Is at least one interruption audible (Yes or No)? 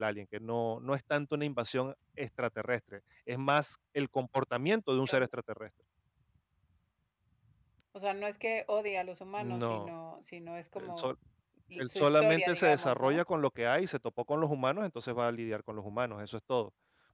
Yes